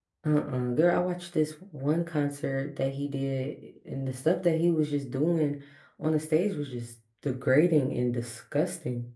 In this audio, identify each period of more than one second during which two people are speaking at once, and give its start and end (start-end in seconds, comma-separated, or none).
none